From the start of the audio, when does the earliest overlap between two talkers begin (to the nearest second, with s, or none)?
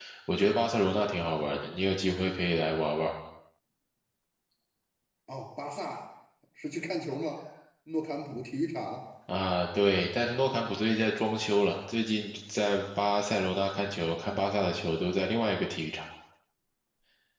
none